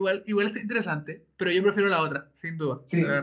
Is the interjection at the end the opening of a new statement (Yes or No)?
Yes